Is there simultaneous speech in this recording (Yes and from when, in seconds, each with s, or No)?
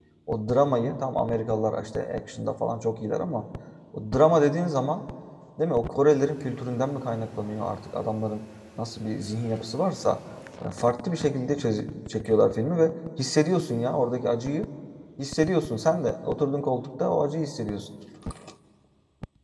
No